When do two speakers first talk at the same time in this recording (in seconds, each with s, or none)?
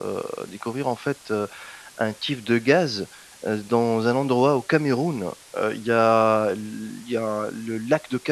none